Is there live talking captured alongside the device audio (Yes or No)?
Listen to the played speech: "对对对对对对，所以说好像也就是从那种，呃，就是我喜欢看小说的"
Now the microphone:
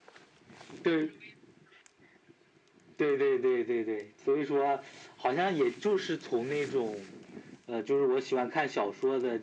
No